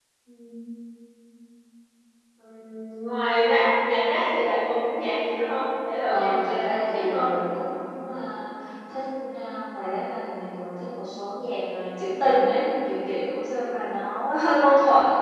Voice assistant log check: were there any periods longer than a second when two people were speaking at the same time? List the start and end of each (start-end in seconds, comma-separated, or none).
6.0-7.3